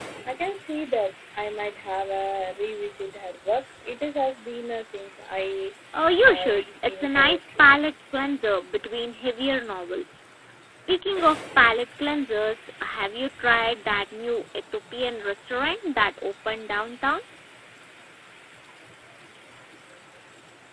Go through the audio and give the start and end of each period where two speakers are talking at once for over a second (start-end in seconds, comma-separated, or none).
6.2-7.6